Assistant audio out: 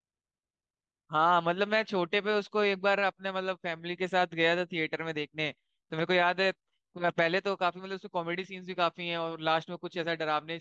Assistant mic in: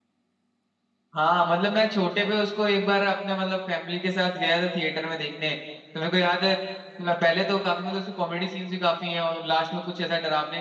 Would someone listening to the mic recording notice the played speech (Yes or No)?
Yes